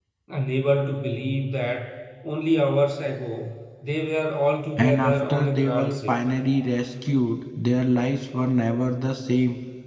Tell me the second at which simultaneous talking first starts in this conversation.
5 s

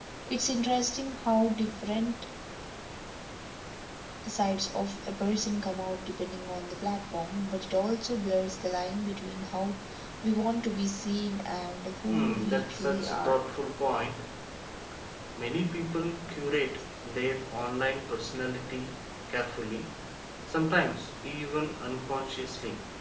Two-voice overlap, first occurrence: 12 s

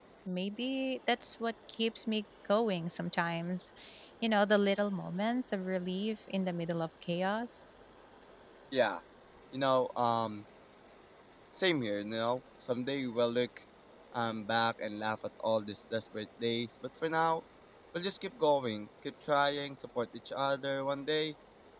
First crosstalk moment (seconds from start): none

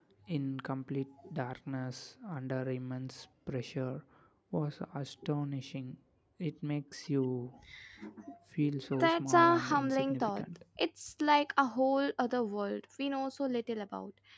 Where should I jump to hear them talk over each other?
9 s

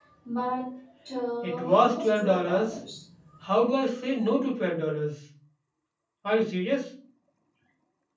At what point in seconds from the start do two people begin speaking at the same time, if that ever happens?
1 s

